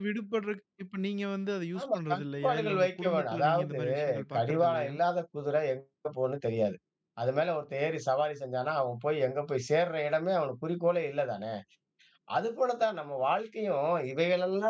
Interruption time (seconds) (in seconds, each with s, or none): 1.8 s